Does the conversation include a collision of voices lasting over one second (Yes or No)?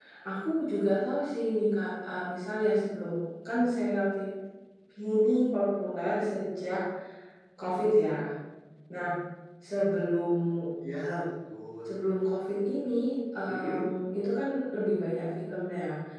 No